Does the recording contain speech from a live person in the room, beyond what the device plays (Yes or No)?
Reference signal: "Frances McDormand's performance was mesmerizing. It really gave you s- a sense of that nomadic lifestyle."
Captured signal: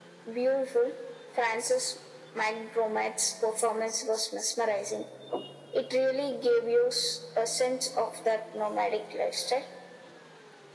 No